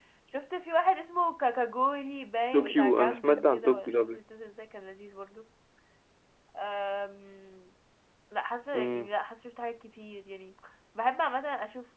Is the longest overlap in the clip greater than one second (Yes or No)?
Yes